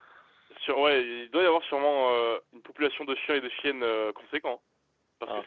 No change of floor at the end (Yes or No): Yes